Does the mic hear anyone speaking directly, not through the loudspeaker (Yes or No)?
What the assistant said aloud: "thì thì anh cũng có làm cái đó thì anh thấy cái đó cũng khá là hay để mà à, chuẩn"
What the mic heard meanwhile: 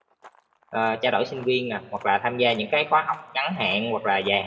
Yes